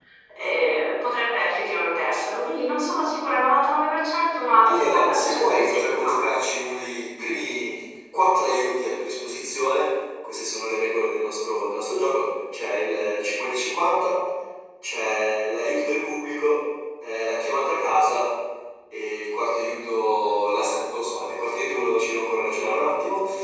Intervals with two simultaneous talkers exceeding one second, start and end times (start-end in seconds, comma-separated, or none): 4.6-6.1